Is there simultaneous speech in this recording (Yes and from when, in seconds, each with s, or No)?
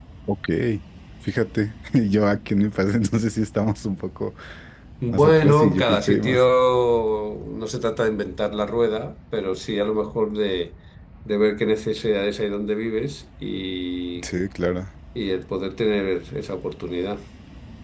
Yes, from 5.1 s